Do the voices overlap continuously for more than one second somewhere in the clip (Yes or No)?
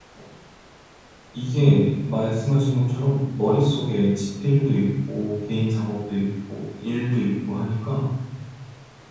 No